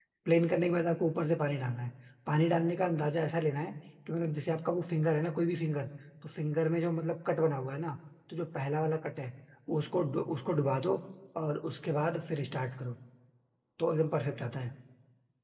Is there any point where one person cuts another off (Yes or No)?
No